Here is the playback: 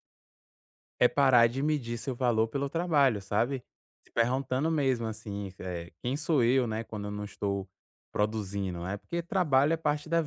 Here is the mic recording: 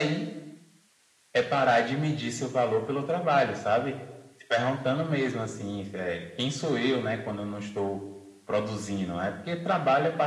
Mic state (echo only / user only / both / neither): echo only